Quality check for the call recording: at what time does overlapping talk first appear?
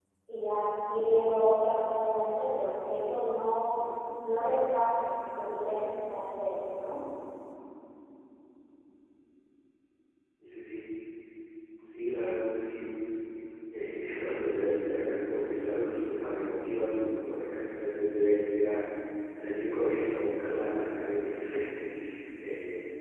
none

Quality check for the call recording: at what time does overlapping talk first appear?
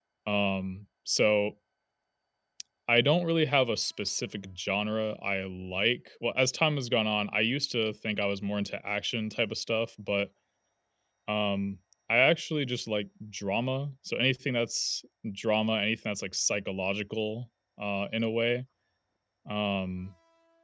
none

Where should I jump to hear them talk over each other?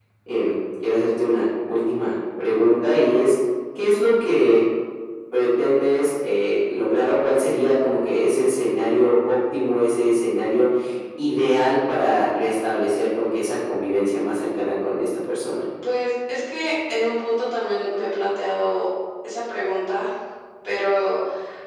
none

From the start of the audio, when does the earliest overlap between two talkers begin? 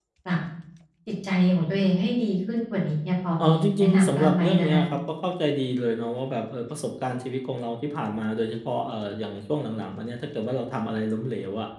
3 s

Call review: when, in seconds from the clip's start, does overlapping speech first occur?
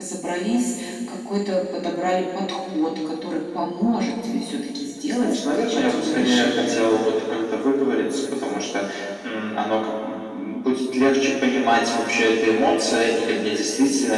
5 s

